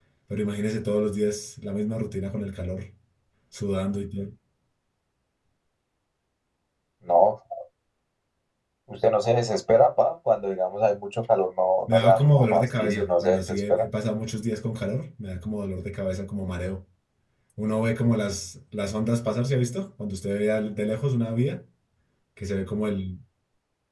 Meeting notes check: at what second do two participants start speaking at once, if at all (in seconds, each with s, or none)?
11.9 s